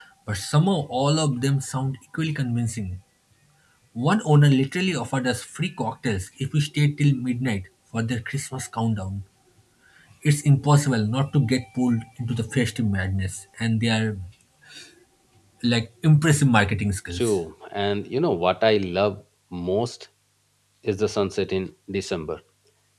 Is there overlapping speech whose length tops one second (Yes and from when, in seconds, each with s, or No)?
No